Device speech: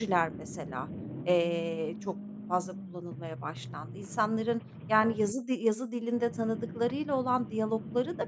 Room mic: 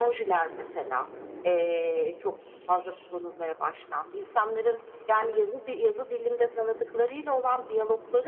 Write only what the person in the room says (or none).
none